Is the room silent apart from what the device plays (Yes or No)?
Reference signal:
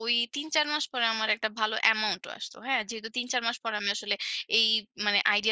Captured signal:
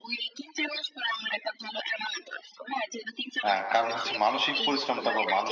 No